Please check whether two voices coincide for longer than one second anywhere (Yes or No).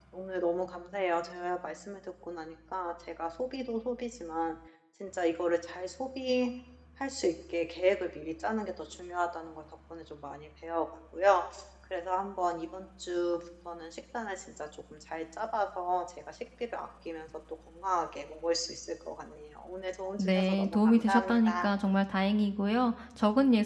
Yes